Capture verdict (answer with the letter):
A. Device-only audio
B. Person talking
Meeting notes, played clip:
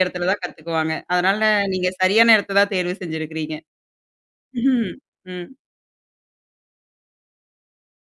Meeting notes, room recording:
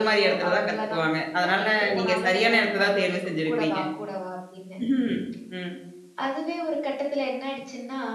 B